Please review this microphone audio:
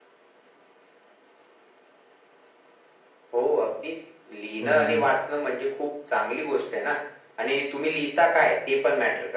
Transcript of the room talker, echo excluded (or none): बरोबर.